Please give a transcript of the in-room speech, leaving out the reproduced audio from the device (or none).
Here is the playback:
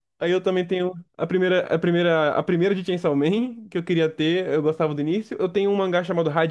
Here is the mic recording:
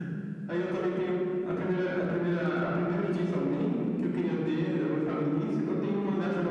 none